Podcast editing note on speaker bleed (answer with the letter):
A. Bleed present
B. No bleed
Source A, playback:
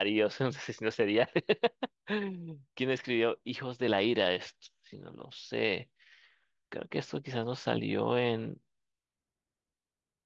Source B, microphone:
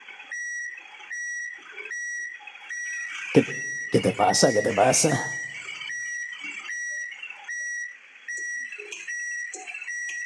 B